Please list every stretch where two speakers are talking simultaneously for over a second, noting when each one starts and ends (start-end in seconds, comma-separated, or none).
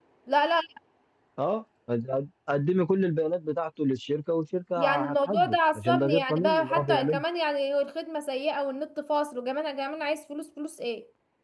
4.8-7.2